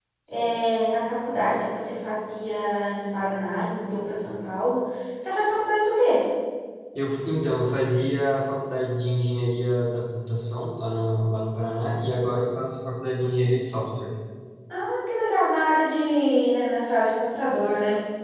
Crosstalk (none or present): none